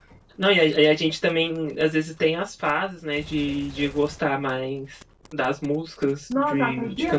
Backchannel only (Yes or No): No